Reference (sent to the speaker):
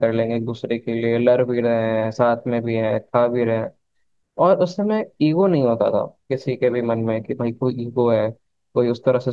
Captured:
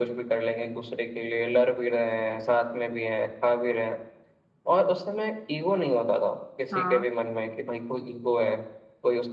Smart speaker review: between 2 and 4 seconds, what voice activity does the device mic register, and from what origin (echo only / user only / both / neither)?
echo only